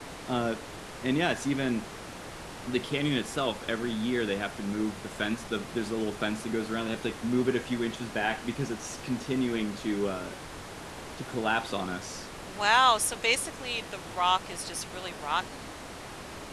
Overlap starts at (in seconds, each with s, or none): none